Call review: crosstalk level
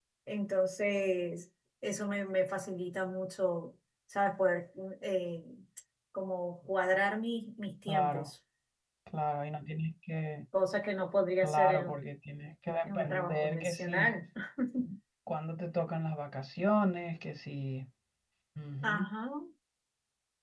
present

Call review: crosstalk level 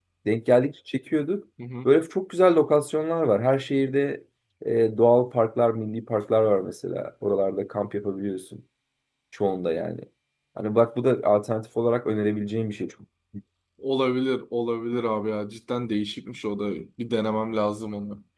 none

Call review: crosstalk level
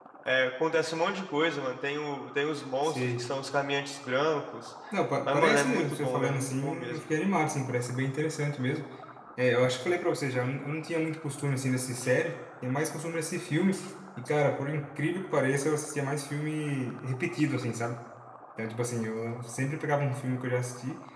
present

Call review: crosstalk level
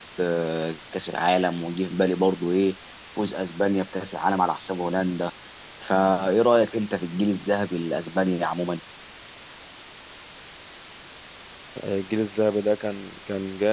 none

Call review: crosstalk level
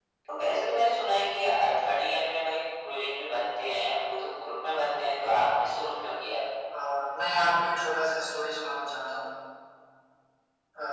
none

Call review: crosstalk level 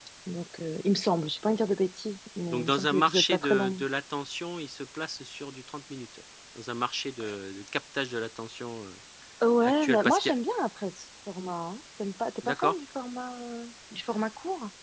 present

